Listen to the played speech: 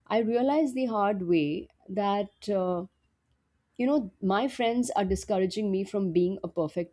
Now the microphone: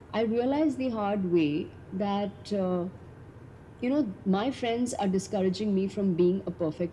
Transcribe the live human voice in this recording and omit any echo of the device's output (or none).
none